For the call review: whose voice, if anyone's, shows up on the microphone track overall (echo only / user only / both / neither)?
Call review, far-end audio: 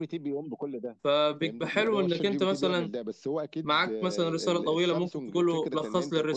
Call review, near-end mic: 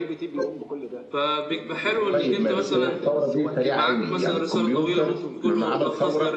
both